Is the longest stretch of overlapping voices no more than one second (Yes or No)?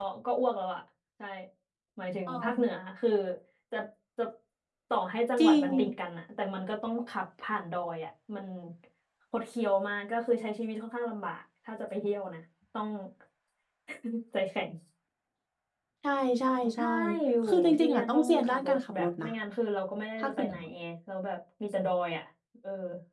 No